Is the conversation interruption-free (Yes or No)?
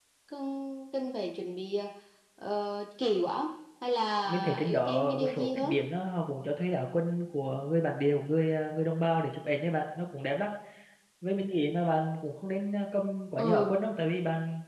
No